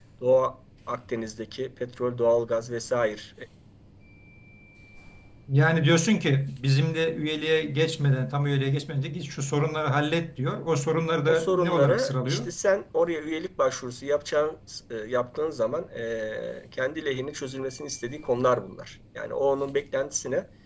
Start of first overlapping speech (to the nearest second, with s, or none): 11 s